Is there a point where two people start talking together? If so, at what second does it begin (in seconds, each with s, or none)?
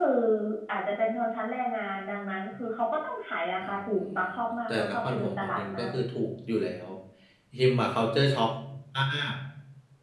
4.7 s